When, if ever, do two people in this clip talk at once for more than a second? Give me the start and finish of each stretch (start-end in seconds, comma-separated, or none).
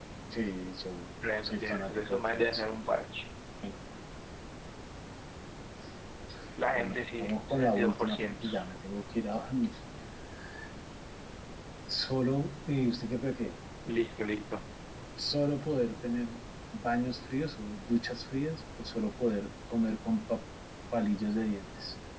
1.4-2.6, 6.8-8.5